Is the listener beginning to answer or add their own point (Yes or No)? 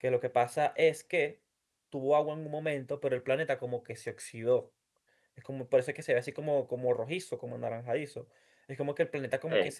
No